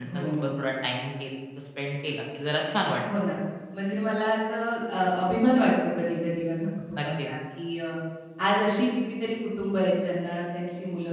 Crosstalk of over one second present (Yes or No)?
No